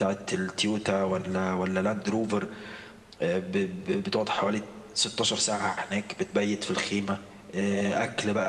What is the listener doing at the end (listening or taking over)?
listening